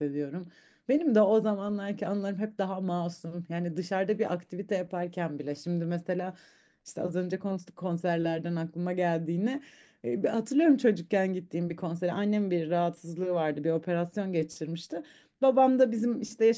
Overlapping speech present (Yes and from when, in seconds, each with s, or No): No